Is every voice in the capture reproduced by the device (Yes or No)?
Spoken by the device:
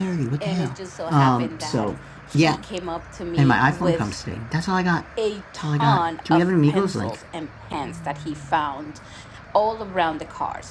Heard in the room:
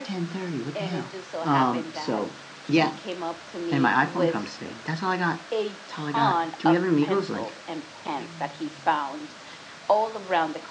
Yes